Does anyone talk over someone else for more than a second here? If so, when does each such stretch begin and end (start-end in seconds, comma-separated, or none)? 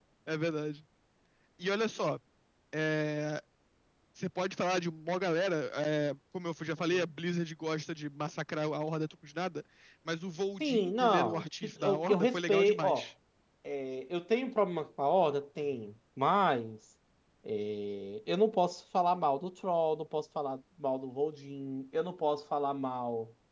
10.6-13.0